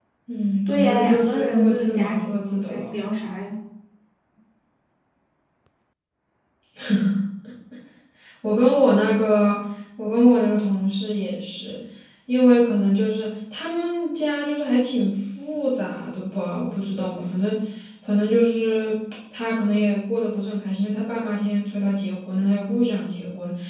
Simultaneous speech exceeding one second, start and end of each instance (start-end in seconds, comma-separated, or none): 0.7-2.9